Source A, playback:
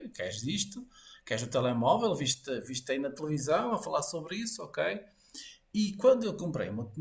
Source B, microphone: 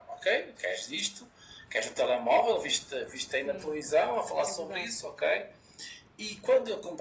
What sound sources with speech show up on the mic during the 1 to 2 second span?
echo only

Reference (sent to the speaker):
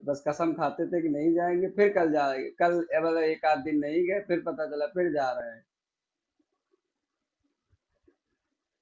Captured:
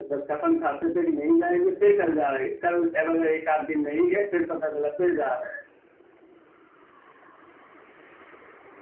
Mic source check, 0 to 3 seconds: echo only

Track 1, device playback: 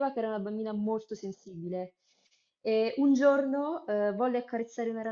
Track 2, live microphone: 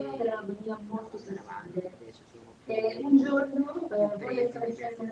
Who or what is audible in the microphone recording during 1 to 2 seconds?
both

